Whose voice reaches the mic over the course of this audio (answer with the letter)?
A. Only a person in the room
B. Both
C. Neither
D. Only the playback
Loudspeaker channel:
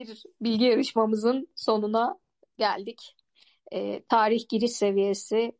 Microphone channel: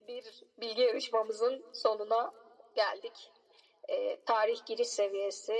D